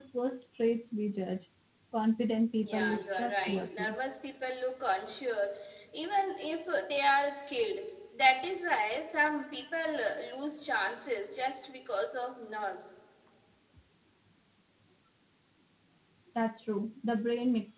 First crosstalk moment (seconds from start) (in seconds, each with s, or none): 2.6 s